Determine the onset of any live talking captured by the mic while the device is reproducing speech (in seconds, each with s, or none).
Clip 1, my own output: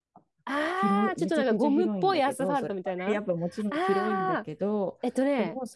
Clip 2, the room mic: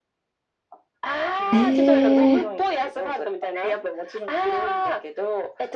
1.5 s